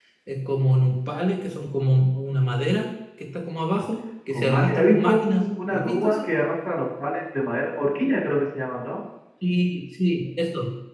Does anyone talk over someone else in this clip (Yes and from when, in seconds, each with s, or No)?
Yes, from 4.3 s